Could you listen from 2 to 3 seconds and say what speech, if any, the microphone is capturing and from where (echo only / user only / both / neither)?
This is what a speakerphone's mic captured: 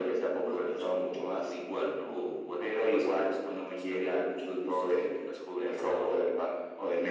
echo only